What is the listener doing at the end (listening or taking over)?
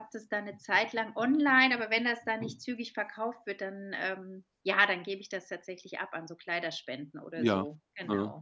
taking over